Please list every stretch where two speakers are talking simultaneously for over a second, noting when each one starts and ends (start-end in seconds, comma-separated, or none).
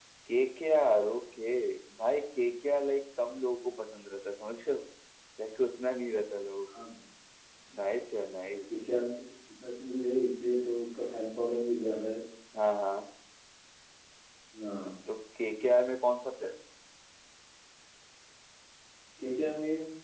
none